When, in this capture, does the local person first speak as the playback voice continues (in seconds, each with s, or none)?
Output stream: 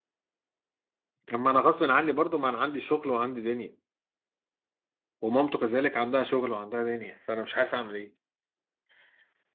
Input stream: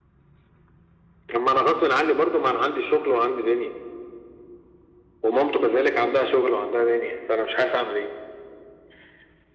none